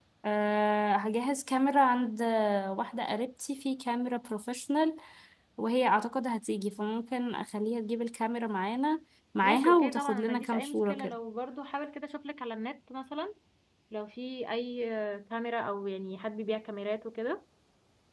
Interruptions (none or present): present